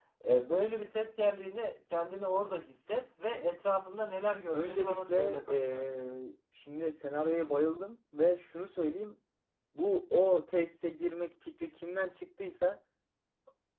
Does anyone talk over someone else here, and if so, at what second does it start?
5 s

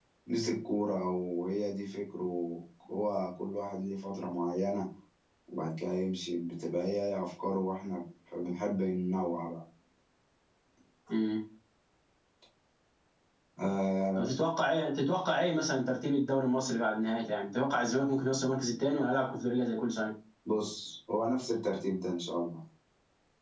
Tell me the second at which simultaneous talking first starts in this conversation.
none

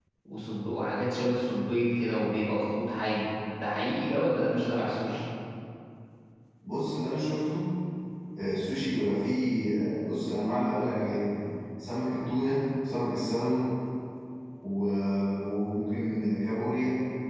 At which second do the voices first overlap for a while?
none

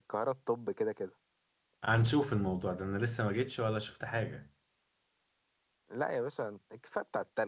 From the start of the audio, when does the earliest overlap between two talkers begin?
none

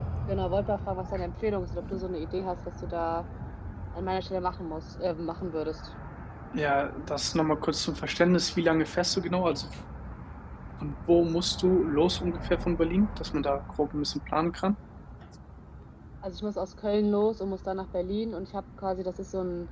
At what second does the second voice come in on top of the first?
none

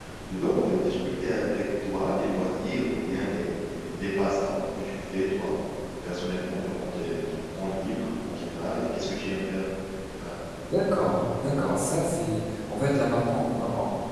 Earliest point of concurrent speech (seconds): none

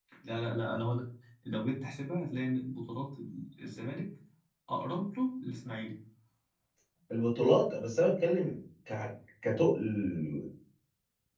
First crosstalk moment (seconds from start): none

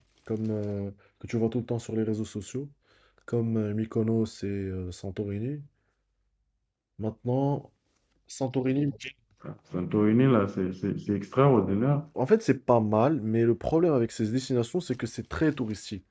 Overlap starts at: none

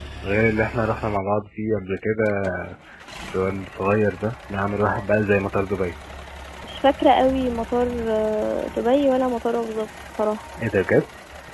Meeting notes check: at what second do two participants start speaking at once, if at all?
none

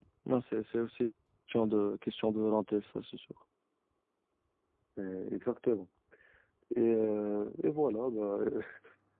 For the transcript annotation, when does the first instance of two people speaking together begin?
none

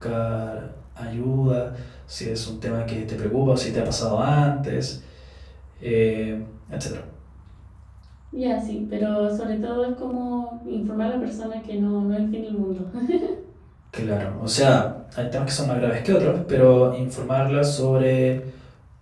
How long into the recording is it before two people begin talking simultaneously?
none

